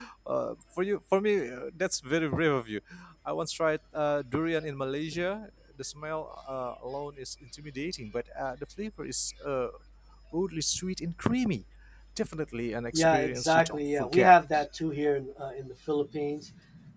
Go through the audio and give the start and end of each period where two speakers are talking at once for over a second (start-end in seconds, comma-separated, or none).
12.9-14.3